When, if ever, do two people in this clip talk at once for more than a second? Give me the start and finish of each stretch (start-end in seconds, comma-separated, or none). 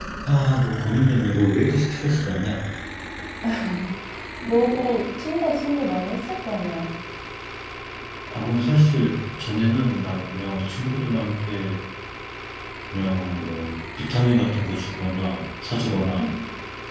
none